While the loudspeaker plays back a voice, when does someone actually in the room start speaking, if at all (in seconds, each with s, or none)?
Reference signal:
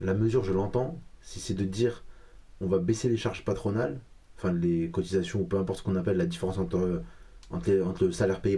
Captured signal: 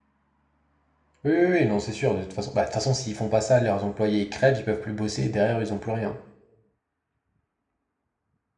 1.2 s